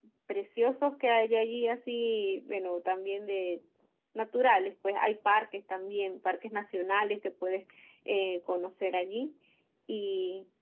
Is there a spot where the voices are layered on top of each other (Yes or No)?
No